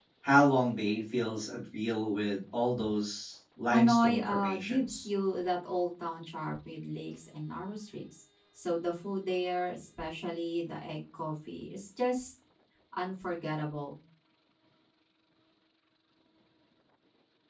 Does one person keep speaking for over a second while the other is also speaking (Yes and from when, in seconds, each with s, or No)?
Yes, from 3.7 s